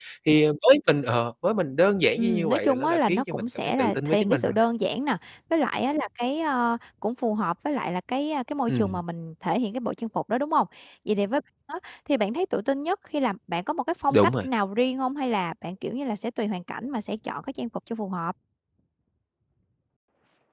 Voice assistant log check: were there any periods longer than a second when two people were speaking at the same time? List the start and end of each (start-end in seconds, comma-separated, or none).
2.2-4.5